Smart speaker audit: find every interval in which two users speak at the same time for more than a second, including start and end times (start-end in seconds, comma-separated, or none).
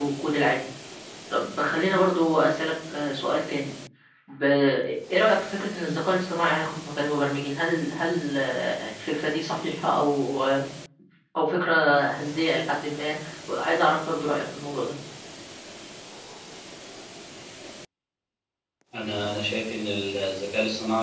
none